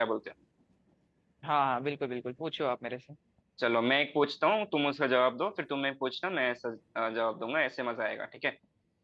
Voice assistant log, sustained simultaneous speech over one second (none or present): none